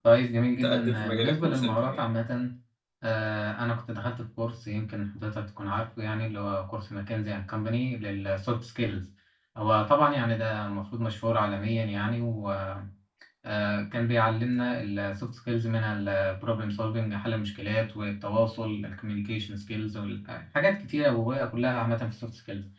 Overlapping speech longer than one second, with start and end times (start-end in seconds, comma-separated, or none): 0.6-2.0